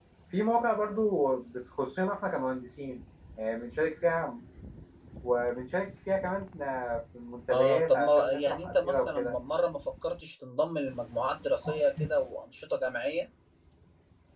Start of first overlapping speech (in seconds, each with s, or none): 7.5 s